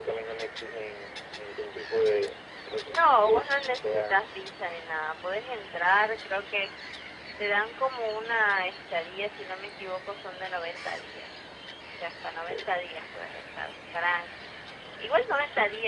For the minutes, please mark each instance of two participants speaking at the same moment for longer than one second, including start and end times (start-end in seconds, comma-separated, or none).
2.9-4.2